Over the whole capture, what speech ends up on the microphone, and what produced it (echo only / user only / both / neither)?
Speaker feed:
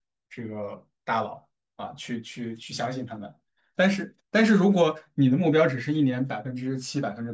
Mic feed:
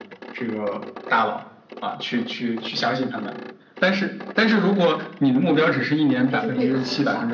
both